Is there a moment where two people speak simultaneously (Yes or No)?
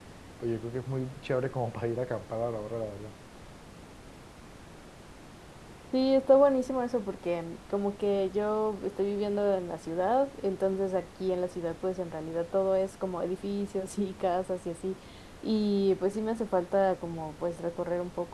No